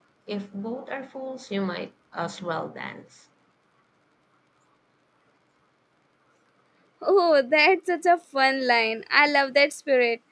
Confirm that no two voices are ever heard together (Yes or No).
Yes